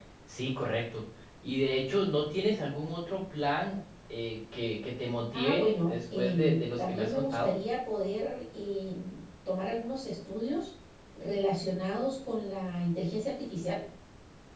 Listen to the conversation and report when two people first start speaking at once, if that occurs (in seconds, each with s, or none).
5.3 s